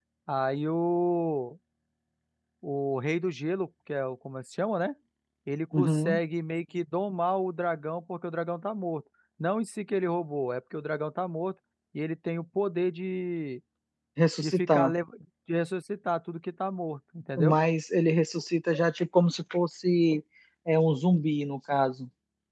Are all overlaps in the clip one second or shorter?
Yes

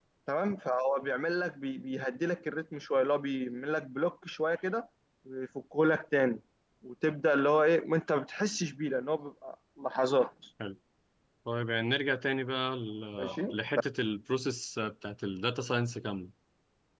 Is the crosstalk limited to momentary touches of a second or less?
Yes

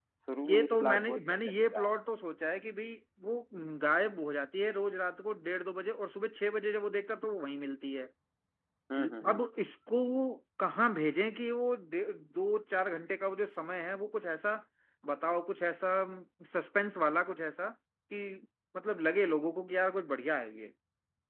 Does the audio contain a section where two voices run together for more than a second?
Yes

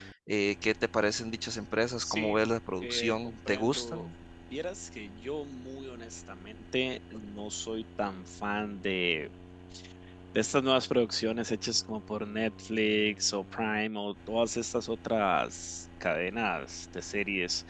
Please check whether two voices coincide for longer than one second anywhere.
Yes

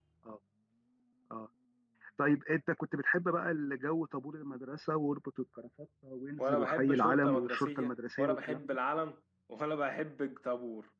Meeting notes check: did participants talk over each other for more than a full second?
Yes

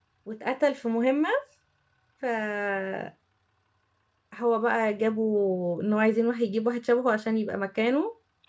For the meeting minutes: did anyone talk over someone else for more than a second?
No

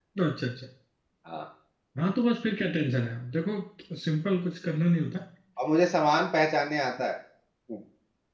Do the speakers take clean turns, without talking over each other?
Yes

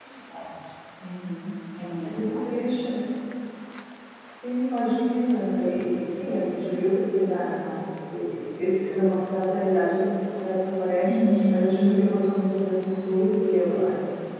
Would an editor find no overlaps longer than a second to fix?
Yes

